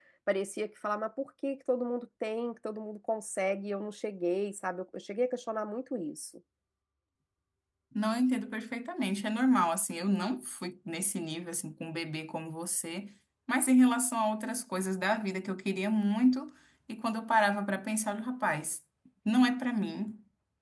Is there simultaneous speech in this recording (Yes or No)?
No